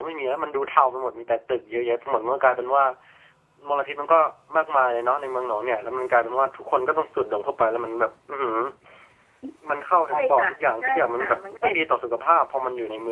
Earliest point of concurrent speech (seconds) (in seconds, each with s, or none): 10.1 s